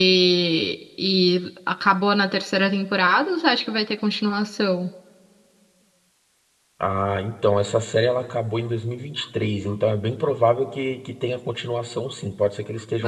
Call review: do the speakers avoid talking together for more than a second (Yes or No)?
Yes